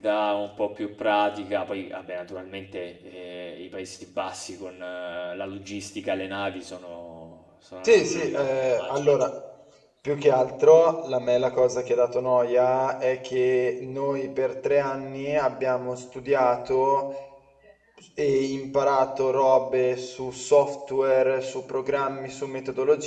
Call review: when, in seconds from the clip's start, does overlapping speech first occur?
7.8 s

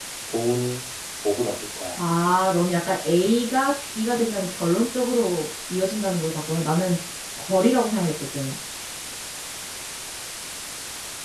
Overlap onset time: none

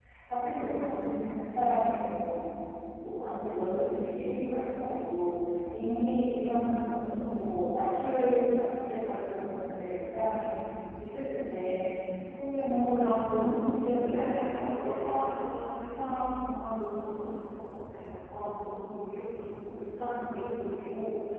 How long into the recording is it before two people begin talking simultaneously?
12.7 s

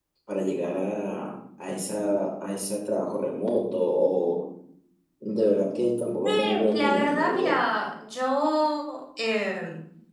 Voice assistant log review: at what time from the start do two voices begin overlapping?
6.2 s

